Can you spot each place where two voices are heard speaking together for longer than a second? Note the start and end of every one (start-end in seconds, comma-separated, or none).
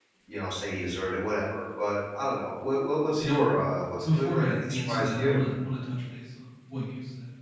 4.0-5.4